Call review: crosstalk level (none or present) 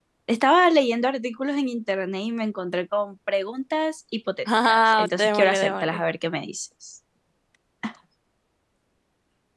present